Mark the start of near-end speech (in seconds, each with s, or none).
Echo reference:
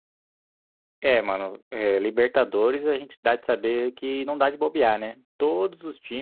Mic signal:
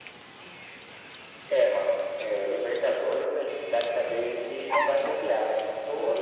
none